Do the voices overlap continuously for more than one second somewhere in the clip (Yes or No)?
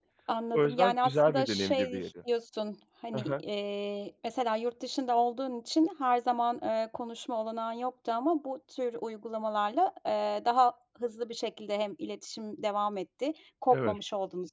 Yes